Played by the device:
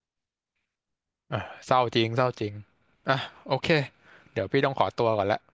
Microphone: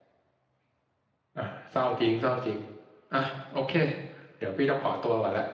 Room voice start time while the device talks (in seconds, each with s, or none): none